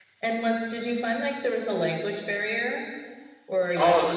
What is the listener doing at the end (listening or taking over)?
taking over